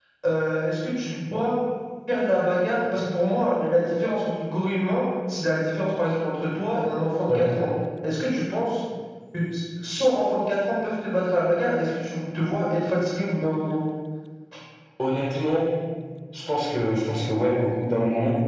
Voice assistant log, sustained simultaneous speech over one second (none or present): none